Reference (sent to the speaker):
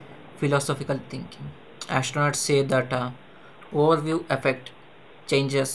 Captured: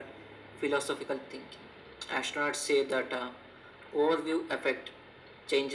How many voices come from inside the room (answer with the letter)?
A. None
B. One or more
A